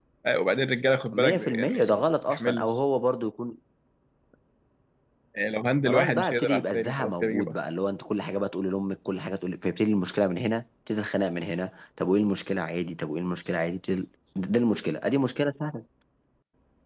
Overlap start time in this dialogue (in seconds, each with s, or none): 1.1 s